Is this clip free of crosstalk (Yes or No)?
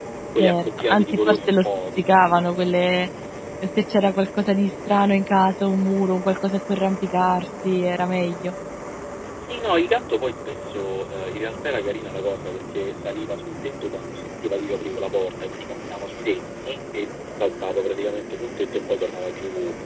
No